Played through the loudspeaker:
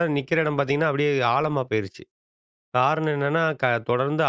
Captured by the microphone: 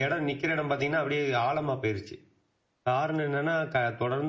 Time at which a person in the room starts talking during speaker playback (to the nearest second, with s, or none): none